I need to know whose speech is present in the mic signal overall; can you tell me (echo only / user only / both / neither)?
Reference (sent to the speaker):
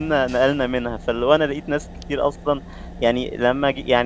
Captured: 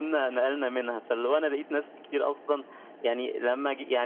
echo only